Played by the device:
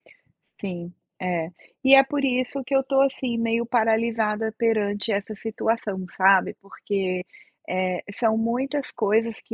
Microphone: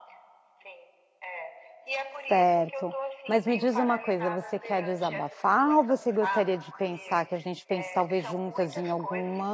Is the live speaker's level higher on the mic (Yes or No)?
Yes